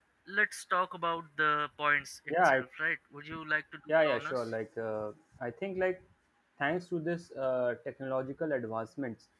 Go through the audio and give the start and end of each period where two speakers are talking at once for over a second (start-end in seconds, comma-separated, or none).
none